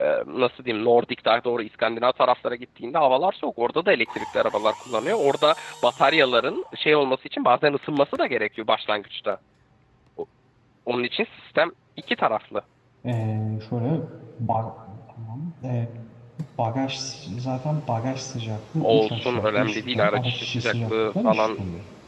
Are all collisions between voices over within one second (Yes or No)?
No